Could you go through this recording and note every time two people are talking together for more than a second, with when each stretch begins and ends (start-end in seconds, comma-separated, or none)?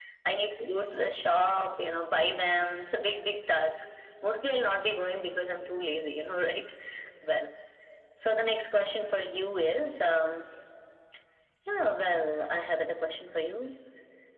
none